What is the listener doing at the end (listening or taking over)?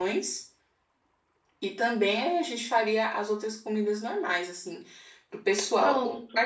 listening